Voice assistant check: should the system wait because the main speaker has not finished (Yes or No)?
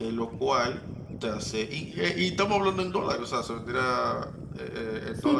No